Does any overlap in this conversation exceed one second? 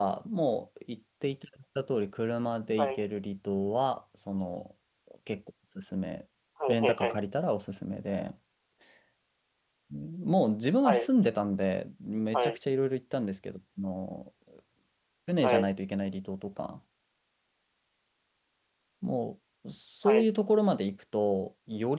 No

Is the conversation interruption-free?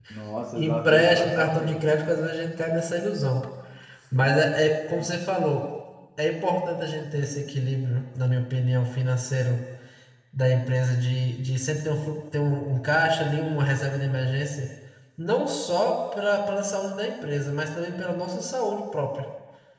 No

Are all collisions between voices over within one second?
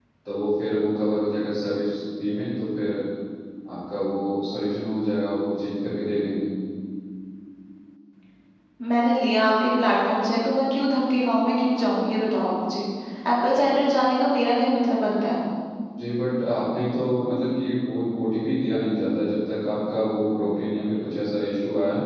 Yes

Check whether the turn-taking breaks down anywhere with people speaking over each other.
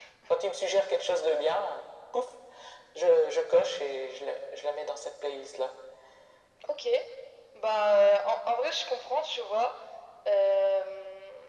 No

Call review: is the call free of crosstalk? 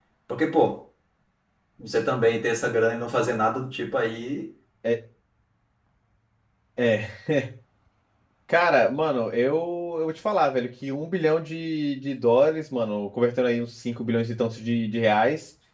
Yes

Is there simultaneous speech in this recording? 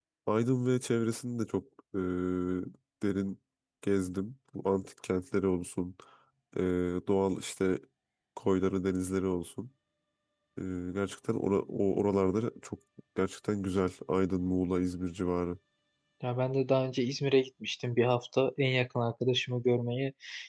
No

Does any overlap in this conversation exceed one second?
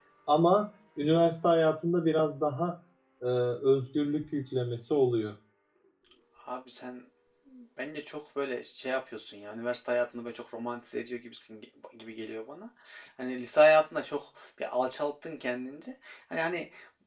No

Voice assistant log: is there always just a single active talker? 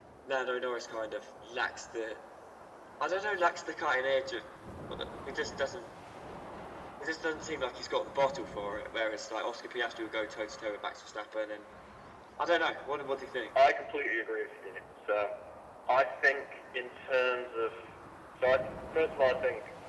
Yes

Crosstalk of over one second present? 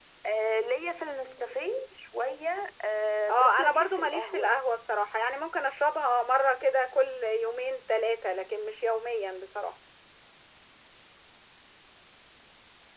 Yes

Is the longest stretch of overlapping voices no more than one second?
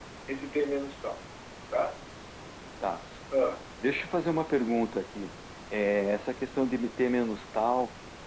Yes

